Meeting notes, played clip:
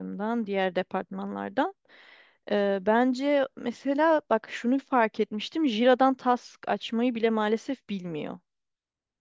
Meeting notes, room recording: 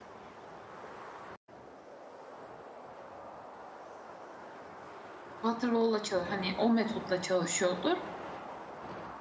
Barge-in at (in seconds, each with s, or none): 5.4 s